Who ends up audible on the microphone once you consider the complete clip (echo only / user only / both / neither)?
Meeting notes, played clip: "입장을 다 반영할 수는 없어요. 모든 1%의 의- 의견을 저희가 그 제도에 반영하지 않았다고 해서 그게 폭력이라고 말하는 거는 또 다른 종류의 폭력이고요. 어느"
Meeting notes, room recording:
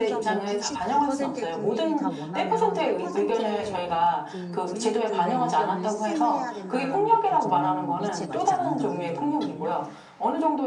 both